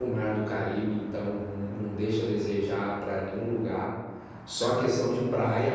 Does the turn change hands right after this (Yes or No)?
No